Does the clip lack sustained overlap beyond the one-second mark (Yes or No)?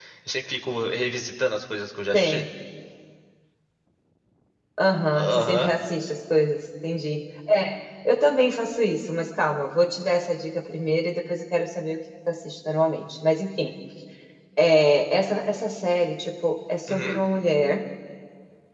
Yes